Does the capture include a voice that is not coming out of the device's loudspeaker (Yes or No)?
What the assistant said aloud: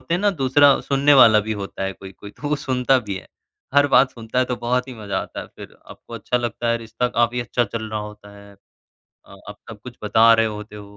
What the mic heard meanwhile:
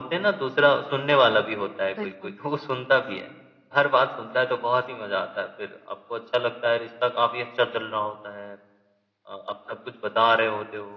Yes